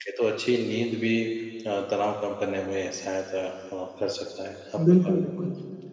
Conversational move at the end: taking over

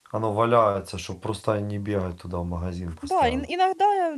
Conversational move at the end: taking over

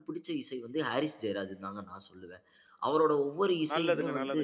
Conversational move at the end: taking over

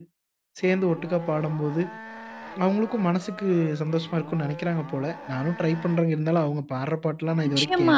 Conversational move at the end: taking over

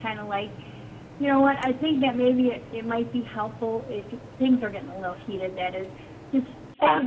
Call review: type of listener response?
listening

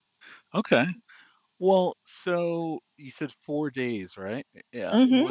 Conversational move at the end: listening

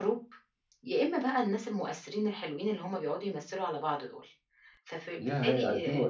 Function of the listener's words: taking over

